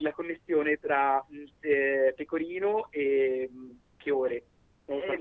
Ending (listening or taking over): taking over